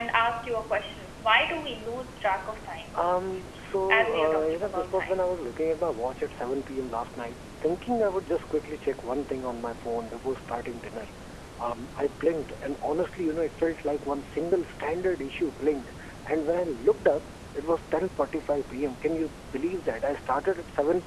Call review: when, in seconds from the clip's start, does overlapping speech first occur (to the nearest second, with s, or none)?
4 s